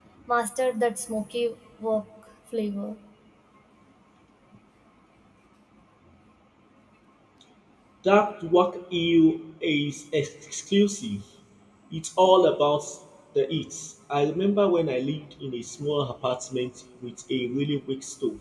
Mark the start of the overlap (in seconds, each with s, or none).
none